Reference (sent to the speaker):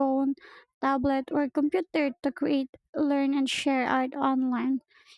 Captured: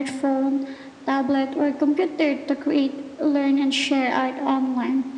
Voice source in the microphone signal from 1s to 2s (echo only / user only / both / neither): echo only